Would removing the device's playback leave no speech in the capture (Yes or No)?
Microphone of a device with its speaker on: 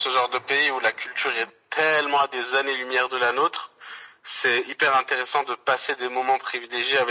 Yes